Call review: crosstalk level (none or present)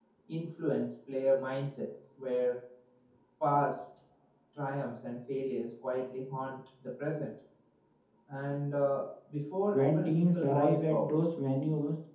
present